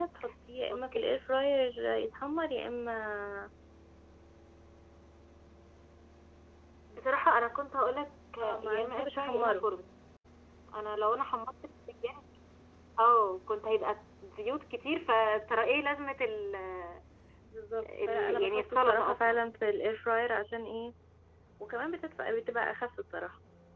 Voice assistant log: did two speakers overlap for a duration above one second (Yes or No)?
Yes